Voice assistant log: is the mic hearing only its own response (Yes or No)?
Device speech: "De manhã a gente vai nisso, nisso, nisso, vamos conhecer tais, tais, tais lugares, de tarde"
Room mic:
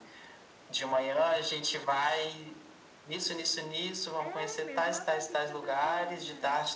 No